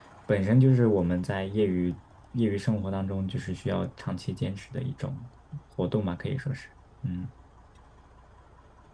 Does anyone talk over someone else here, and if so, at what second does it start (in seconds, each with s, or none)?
none